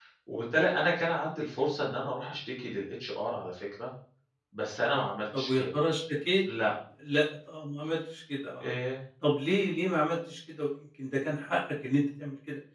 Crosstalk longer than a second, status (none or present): none